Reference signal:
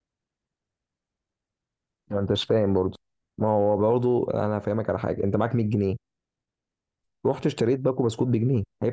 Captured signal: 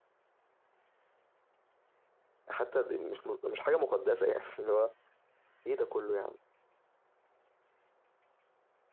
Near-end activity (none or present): present